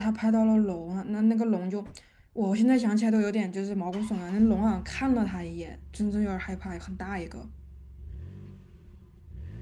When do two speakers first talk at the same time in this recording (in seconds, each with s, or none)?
none